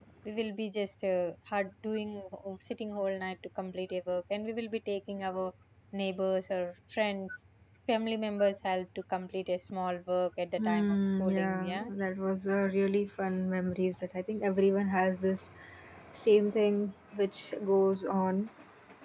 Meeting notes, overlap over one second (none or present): present